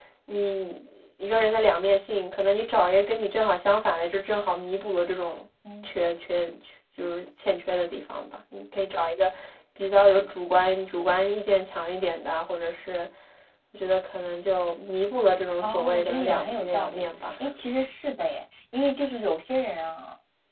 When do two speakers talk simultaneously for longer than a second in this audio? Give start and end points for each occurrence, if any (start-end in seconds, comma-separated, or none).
15.6-17.1